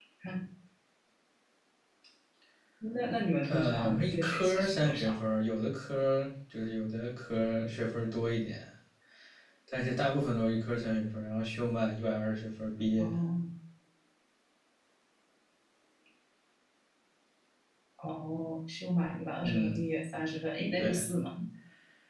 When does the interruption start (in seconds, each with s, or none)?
3.5 s